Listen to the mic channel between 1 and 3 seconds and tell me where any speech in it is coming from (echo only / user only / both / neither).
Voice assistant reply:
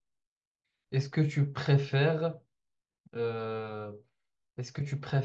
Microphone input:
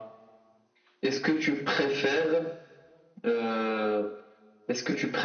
echo only